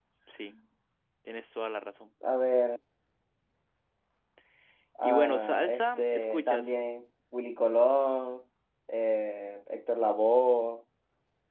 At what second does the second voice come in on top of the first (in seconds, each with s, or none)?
5.0 s